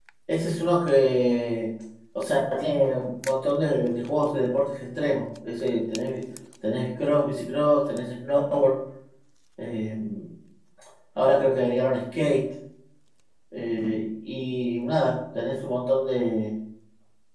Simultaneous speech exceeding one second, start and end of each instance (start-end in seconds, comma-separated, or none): none